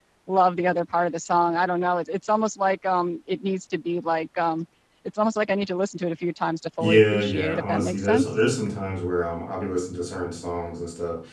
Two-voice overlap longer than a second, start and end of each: 6.8-8.4

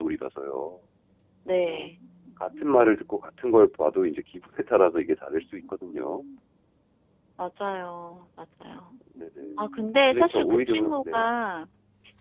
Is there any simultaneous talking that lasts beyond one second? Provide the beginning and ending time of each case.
10.1-11.3

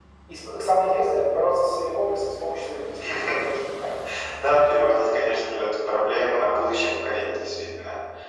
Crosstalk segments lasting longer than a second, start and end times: none

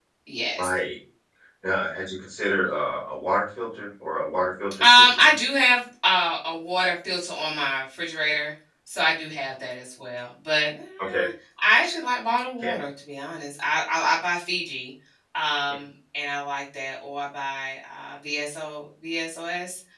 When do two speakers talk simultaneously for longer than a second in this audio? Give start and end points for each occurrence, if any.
none

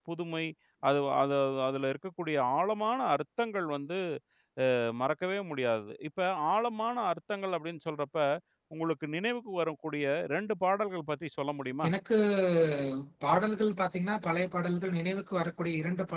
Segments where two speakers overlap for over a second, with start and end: none

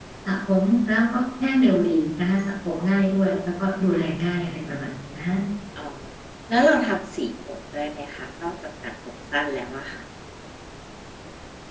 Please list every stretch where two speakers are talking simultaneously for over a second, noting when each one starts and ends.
none

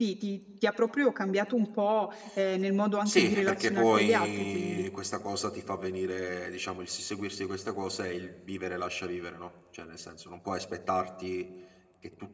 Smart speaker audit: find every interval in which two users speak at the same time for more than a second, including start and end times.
3.0-4.9

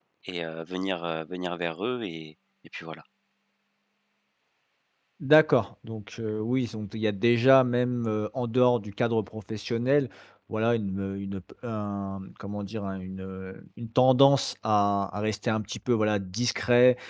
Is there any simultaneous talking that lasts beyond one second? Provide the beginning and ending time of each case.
none

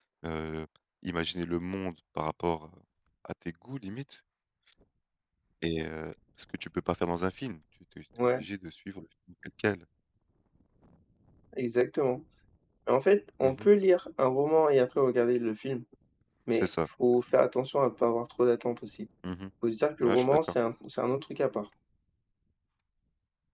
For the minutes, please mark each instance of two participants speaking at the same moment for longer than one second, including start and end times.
none

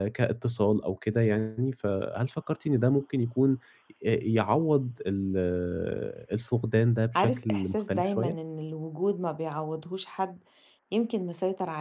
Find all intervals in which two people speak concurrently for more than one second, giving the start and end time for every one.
7.2-8.3

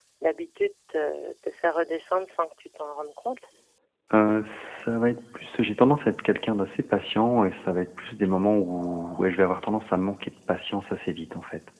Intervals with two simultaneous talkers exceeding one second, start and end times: none

